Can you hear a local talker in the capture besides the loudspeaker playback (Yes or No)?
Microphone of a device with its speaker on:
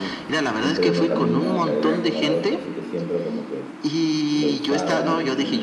Yes